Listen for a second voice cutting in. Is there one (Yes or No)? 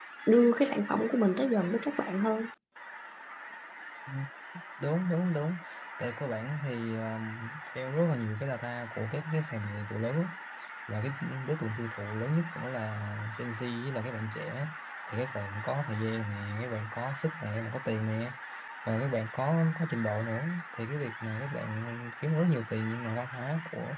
No